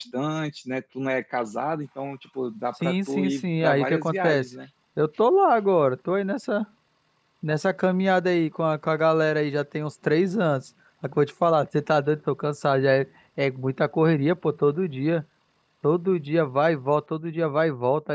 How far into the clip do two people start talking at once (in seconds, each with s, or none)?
2.8 s